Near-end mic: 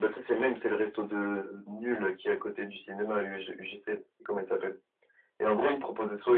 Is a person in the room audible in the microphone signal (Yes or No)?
No